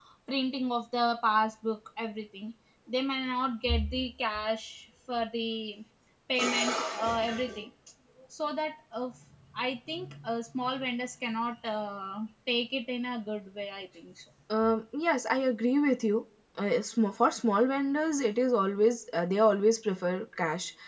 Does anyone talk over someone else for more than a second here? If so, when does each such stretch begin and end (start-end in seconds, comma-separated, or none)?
none